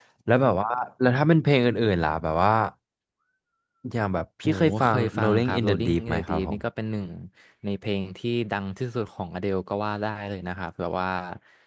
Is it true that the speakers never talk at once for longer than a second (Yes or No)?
No